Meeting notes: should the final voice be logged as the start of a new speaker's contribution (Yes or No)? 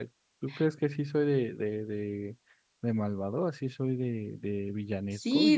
Yes